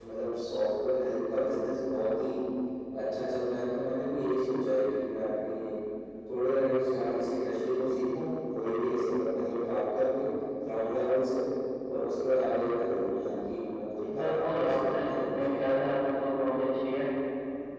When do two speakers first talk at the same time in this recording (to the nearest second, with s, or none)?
14 s